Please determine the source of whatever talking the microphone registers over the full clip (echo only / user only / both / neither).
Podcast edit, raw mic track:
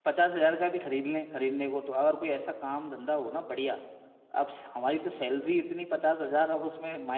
user only